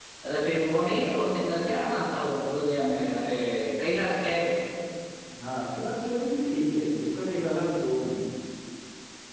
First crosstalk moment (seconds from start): none

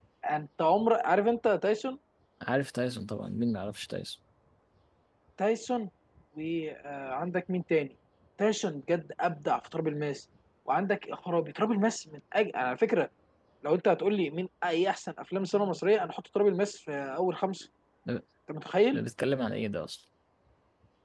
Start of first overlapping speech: none

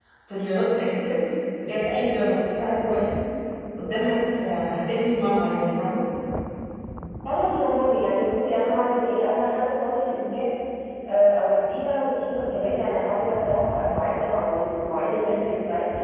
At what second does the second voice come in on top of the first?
none

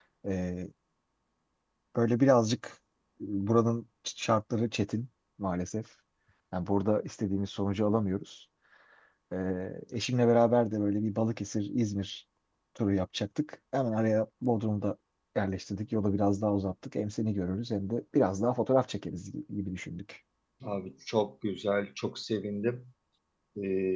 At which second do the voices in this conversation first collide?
none

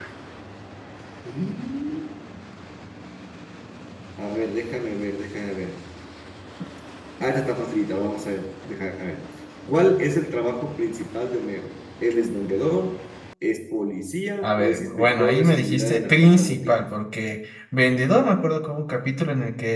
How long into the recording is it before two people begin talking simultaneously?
14.4 s

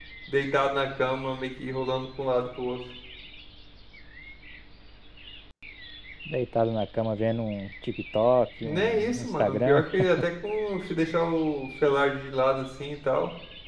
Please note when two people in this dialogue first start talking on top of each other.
8.6 s

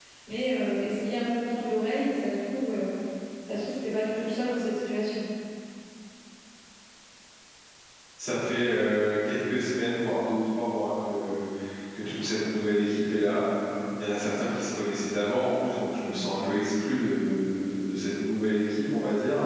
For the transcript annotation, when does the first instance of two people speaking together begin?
none

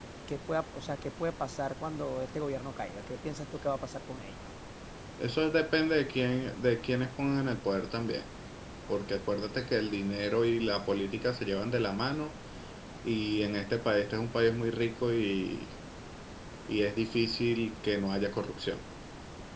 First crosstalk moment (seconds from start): none

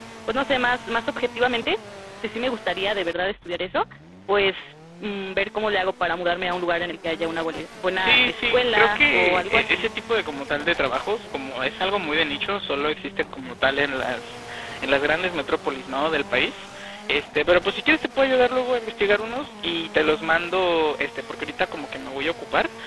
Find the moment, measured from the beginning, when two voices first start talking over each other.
8.0 s

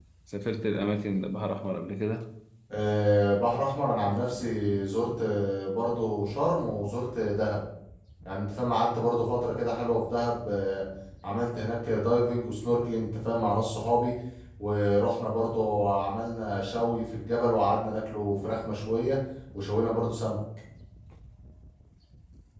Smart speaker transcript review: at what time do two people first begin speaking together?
none

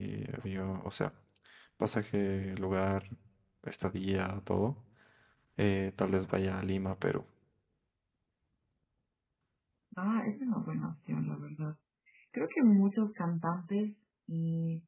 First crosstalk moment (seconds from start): none

